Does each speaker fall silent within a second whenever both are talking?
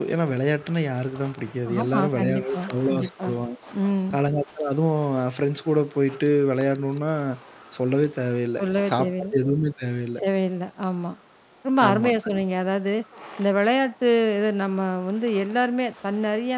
No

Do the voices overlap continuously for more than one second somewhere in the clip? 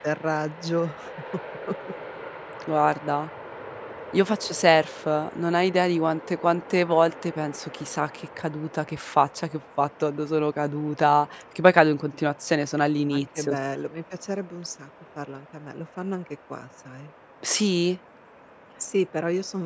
No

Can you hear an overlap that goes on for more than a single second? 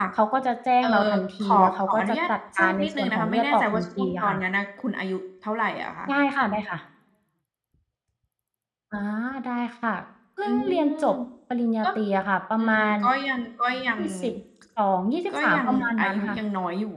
Yes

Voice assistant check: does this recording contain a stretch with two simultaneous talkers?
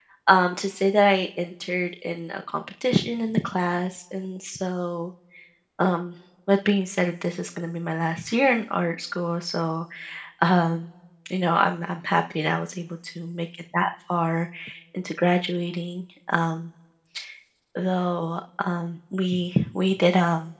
No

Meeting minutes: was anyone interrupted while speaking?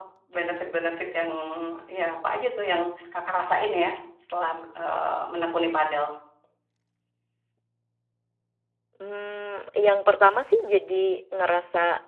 No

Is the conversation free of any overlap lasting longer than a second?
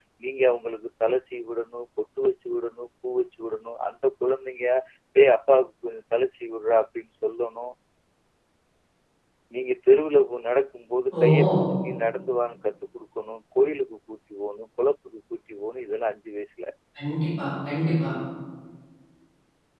Yes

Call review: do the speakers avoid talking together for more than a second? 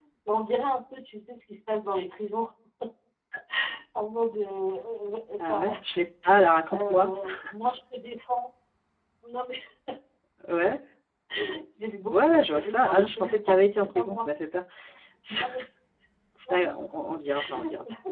No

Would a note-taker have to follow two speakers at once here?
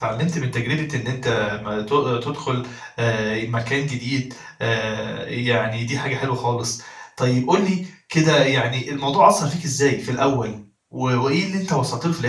No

